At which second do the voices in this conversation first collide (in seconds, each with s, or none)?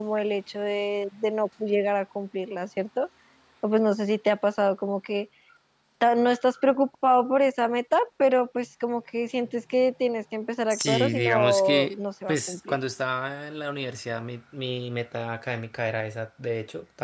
10.7 s